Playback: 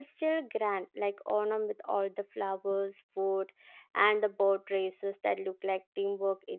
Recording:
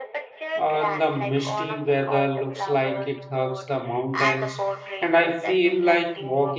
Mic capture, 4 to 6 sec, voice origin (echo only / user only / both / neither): both